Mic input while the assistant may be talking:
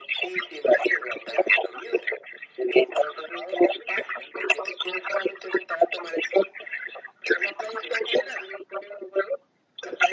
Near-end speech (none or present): none